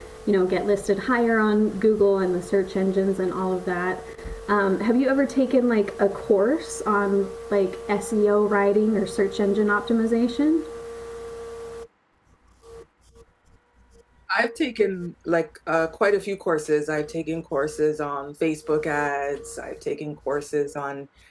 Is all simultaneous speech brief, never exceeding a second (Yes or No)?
Yes